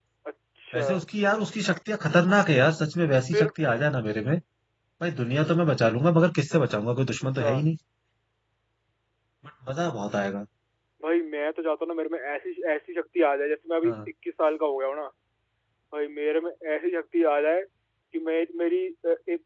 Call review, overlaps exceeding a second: none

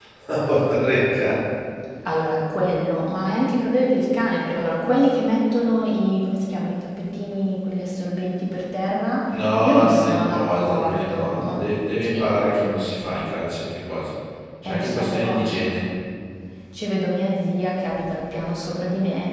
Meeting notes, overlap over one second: present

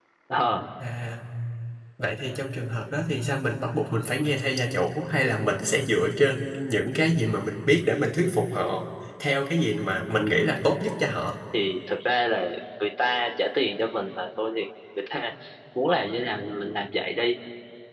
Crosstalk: none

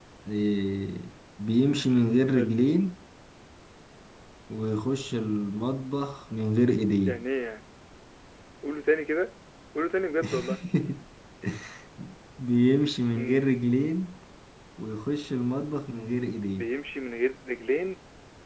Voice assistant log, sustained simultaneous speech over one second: none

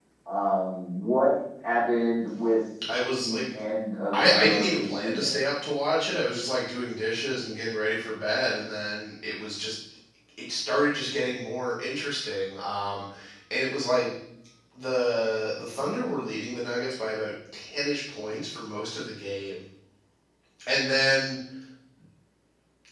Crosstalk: present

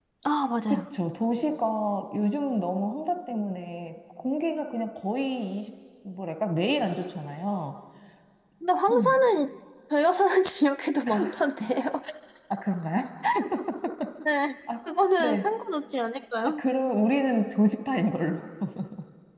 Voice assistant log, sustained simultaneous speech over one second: none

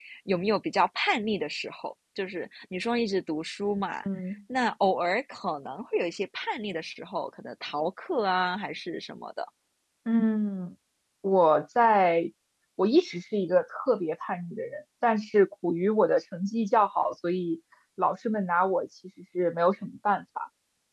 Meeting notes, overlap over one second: none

